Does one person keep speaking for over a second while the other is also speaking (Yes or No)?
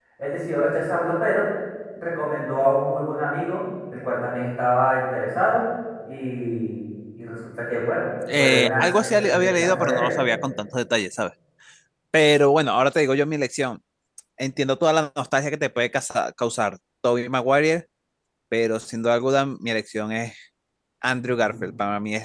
Yes